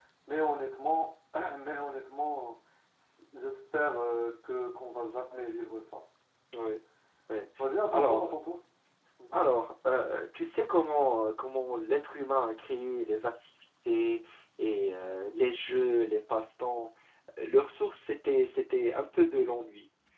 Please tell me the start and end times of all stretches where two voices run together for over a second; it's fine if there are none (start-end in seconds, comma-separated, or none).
none